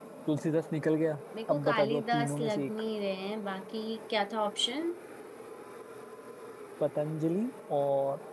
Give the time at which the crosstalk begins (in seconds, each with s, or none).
1.3 s